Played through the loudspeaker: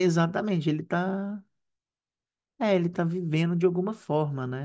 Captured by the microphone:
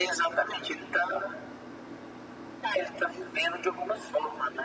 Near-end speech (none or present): none